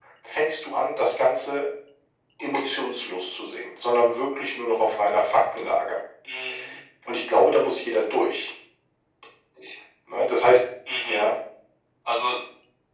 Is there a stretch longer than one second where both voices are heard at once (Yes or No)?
No